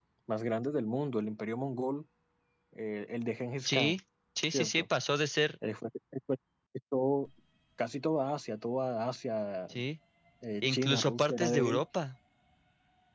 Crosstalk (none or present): present